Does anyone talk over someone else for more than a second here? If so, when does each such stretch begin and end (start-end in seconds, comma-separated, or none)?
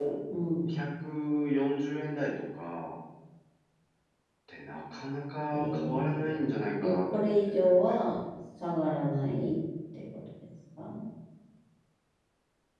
5.5-8.0